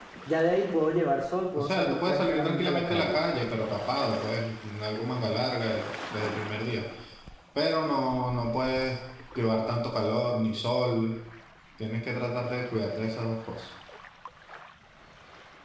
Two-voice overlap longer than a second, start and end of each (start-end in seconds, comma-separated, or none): 1.6-3.2